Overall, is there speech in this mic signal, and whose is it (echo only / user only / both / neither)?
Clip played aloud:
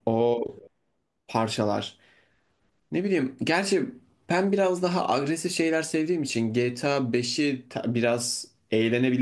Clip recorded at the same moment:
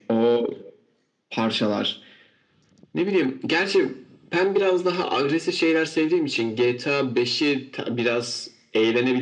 echo only